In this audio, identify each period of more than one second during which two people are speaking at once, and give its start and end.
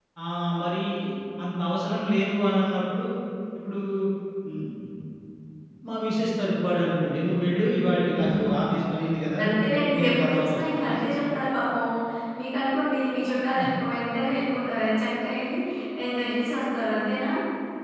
9.4-11.0

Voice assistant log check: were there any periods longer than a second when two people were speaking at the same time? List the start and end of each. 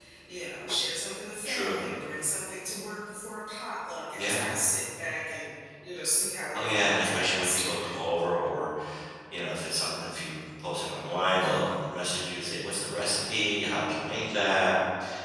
6.5-8.0

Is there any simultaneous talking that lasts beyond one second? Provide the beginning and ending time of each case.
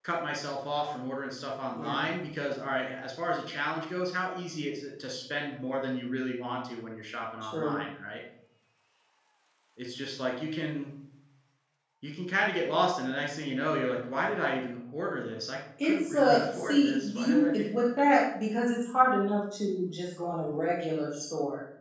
15.8-17.6

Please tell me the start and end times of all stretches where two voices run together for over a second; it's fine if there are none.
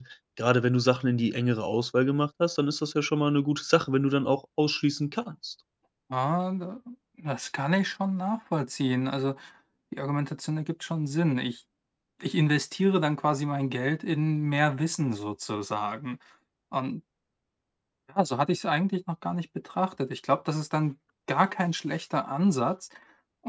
none

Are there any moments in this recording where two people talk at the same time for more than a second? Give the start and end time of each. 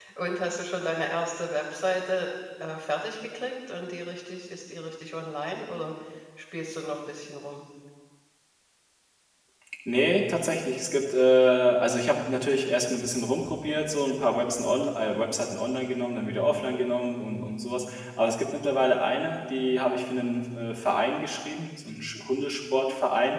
none

